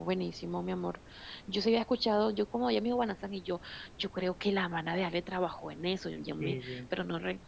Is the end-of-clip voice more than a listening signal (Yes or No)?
No